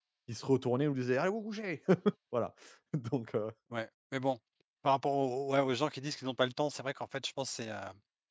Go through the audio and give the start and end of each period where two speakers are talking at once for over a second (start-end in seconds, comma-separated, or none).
none